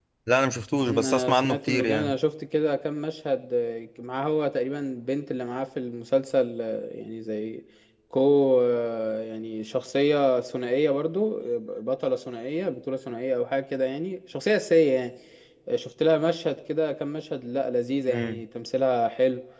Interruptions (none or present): present